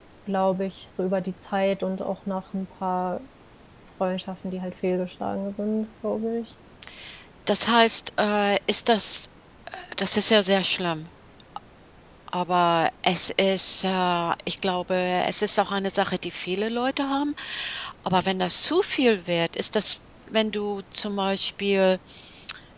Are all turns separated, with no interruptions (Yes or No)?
Yes